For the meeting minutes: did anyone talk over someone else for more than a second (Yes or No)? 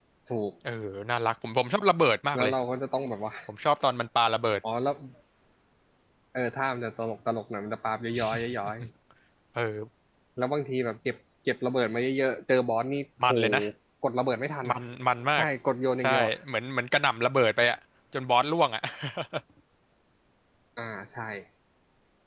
No